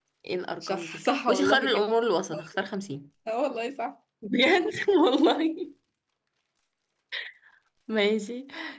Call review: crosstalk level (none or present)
present